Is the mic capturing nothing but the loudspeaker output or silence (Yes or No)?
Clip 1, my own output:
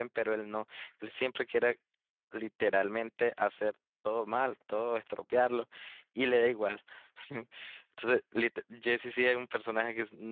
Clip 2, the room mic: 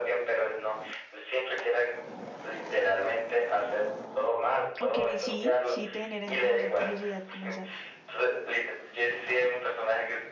No